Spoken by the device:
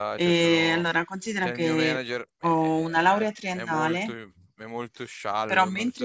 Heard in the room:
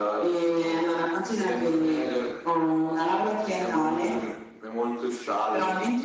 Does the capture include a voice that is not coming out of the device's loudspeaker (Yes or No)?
No